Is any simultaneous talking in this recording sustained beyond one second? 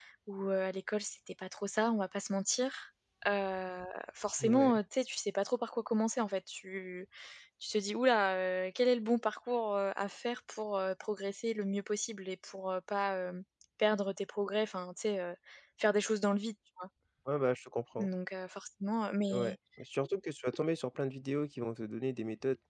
No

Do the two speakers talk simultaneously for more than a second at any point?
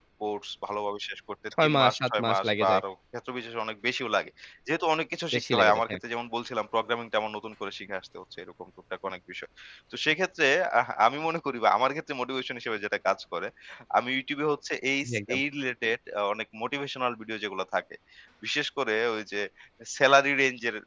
Yes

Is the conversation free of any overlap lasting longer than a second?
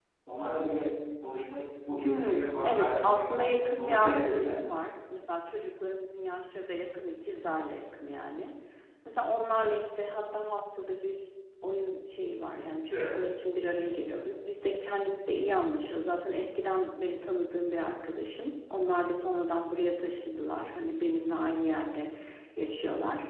No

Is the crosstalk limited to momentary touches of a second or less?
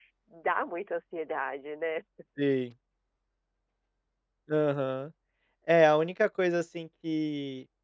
Yes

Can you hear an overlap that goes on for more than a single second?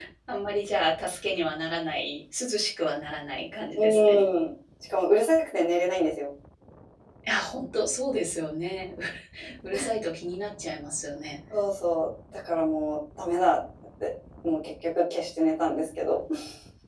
No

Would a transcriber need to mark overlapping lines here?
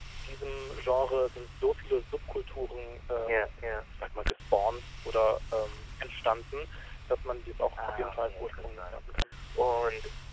Yes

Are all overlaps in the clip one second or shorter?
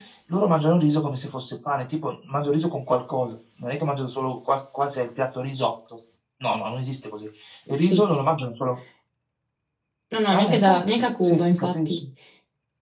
No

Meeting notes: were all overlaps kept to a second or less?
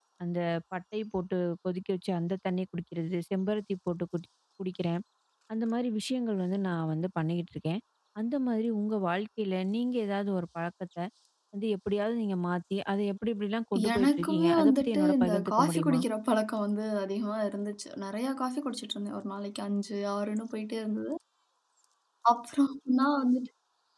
No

